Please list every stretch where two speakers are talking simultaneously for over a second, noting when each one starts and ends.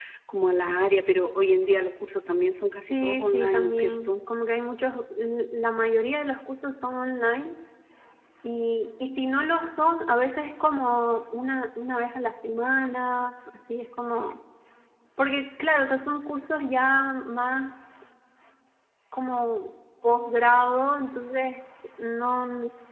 2.7-4.1

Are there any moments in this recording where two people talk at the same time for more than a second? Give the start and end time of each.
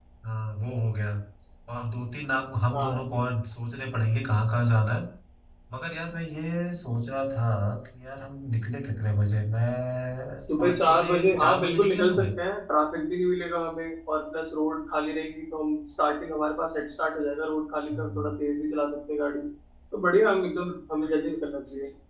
10.6-12.2

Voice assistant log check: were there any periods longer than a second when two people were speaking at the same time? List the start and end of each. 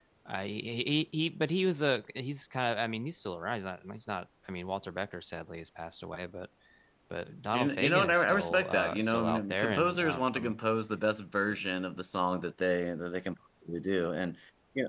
7.5-10.6

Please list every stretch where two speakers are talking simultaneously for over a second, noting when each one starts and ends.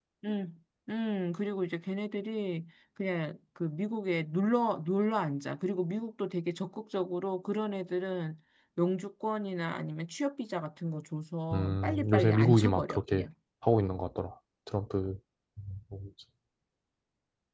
11.5-13.2

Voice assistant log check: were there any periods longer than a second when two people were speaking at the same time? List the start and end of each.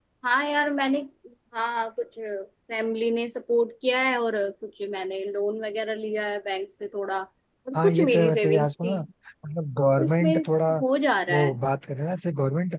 7.8-9.0

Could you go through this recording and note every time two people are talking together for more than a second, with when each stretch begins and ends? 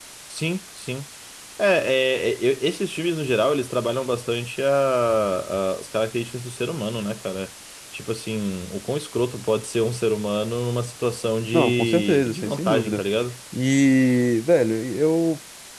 11.5-13.0

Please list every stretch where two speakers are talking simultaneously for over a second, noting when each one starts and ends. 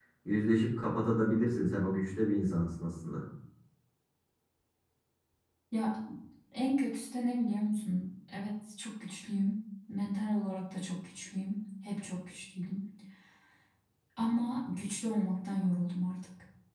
none

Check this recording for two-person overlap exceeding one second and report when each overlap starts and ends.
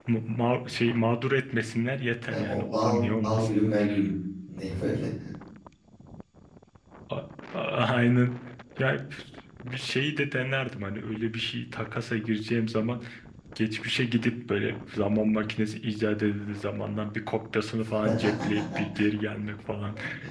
2.3-3.5

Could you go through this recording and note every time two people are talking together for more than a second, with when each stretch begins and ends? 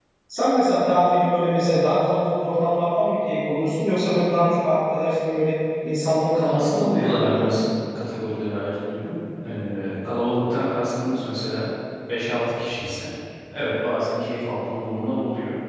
6.3-7.6

